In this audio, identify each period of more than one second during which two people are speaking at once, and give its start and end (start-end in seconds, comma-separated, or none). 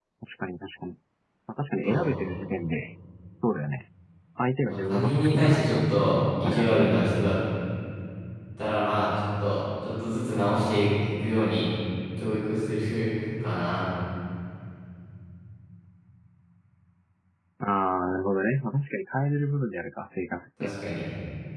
4.7-5.9